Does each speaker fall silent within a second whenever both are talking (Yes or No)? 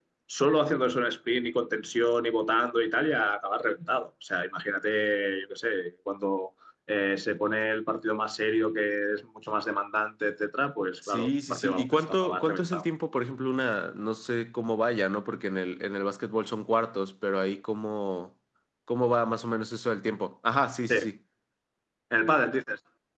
No